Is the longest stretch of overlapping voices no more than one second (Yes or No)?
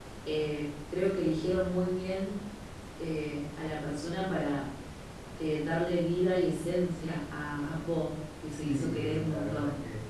No